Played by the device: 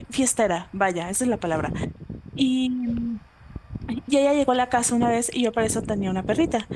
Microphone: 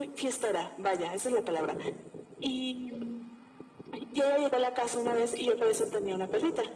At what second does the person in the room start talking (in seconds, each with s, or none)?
none